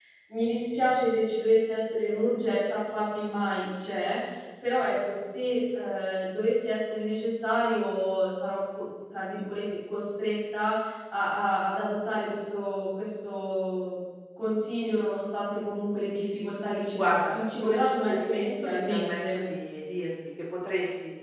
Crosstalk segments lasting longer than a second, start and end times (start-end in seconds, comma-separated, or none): 17.0-19.4